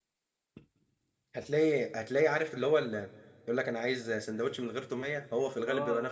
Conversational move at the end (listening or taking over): taking over